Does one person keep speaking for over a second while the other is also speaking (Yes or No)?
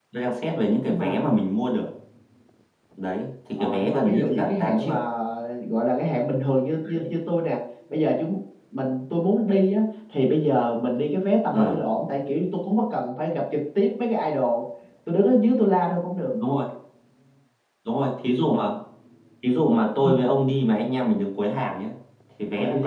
Yes